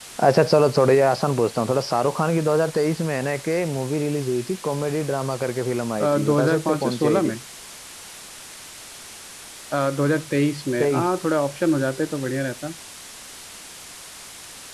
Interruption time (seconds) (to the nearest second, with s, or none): 6 s